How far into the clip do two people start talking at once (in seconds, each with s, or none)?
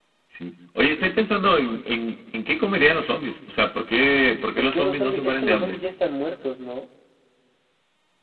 4.6 s